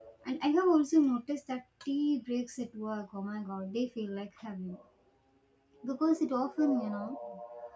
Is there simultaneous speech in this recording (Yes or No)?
No